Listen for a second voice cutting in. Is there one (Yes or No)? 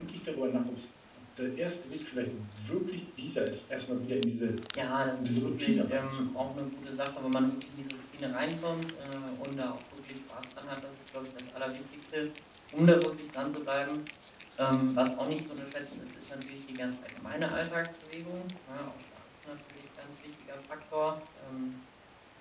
Yes